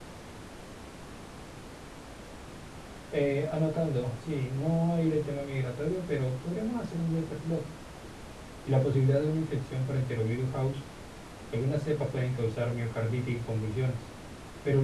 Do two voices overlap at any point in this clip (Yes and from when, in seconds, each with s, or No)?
No